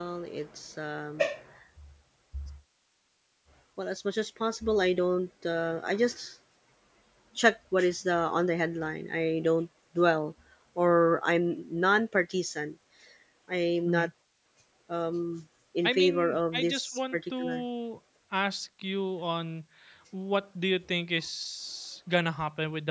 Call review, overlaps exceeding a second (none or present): present